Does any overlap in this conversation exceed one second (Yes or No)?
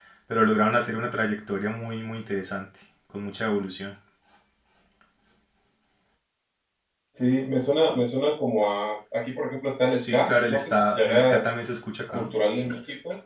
Yes